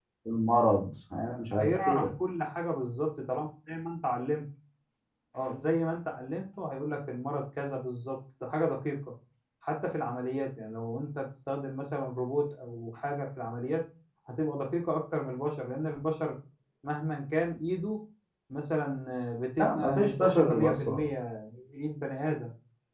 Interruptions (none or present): present